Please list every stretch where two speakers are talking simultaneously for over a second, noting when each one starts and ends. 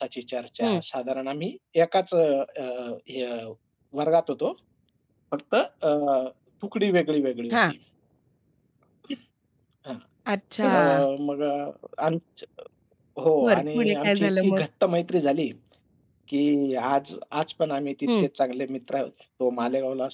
13.4-14.6

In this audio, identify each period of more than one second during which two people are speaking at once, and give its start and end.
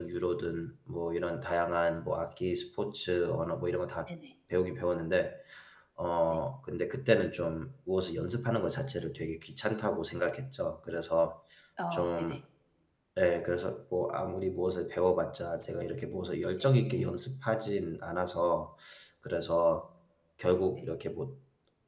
none

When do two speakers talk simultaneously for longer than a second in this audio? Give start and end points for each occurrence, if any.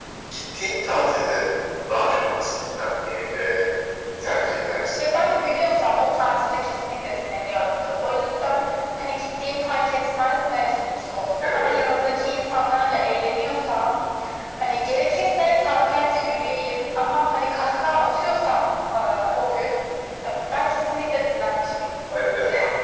none

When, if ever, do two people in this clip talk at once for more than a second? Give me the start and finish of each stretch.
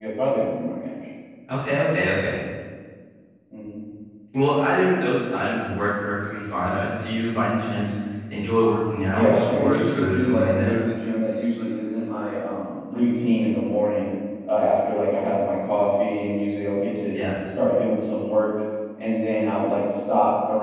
9.1-10.7

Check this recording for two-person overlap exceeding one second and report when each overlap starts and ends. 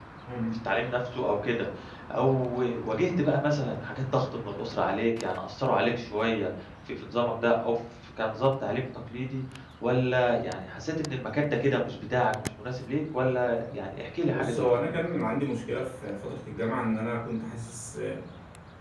none

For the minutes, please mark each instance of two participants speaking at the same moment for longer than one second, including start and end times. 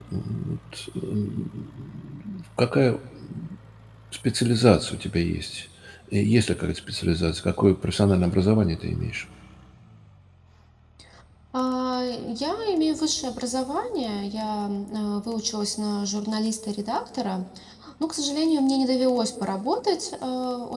none

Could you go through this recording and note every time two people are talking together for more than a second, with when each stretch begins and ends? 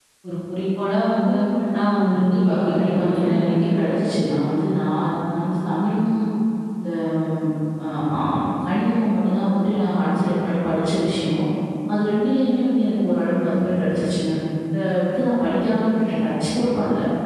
2.1-3.7

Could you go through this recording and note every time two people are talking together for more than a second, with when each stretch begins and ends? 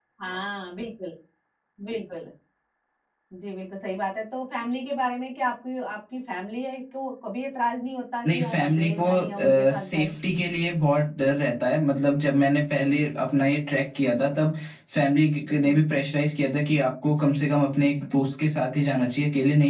8.2-10.1

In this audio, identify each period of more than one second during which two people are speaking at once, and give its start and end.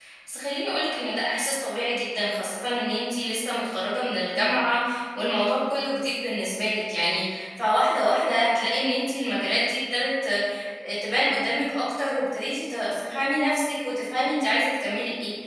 none

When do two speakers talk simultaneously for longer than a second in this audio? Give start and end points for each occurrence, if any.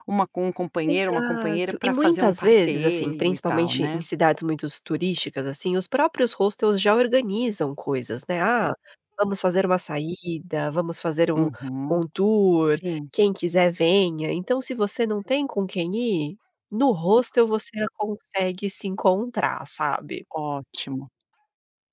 0.8-4.0

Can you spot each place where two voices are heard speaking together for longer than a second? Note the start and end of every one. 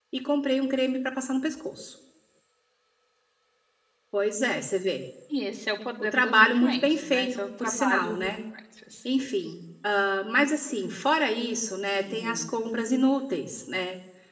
6.0-8.3

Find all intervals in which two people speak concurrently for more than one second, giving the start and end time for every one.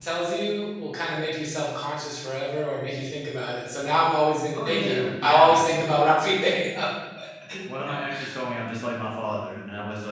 4.5-6.0

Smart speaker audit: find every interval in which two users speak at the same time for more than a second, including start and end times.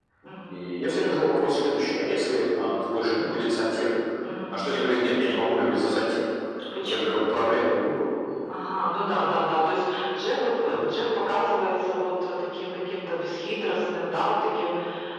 none

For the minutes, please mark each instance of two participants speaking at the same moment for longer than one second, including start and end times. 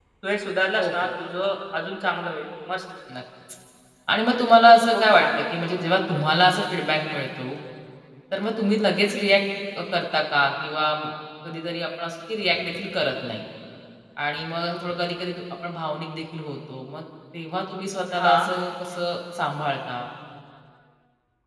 none

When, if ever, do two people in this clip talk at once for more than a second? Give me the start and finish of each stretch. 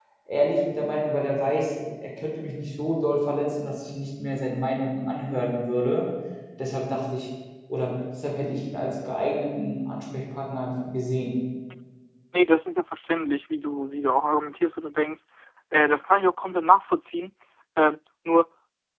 none

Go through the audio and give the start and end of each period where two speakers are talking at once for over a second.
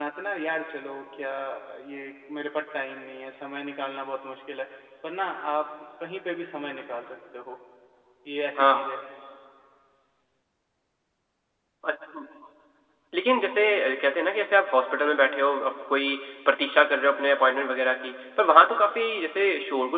none

